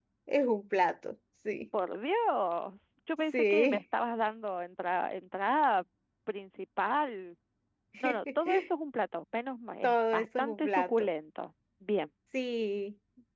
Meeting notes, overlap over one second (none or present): present